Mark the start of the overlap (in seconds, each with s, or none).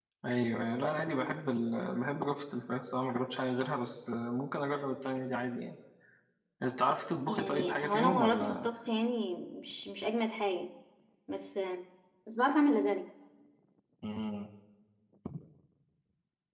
7.3 s